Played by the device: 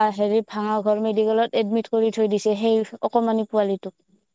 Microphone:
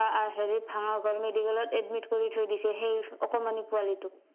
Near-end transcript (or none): none